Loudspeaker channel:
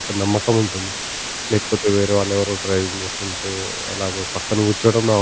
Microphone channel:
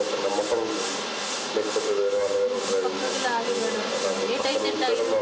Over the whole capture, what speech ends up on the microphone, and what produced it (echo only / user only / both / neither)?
both